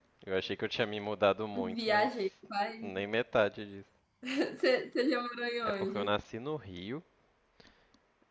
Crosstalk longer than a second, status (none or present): none